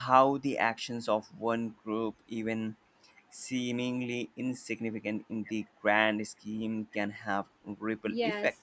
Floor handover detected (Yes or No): Yes